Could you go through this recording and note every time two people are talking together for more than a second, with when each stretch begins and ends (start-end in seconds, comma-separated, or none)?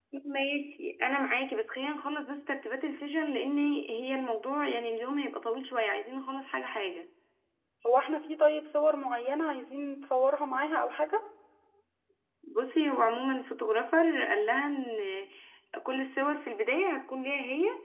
none